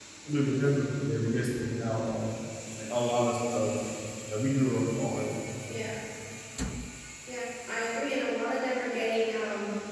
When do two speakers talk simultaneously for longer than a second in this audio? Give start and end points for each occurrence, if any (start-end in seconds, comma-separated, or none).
none